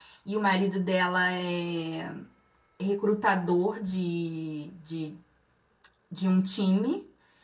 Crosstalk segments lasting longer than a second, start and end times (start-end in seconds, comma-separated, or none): none